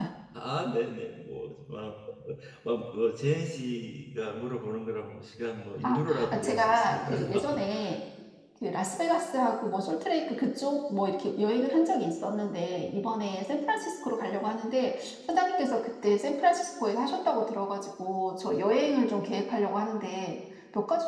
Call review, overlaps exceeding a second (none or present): present